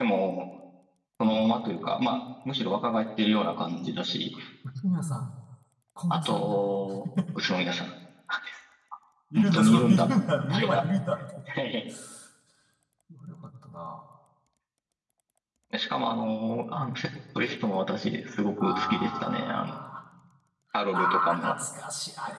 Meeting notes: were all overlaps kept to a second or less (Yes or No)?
No